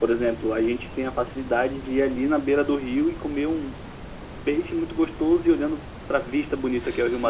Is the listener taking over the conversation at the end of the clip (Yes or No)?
Yes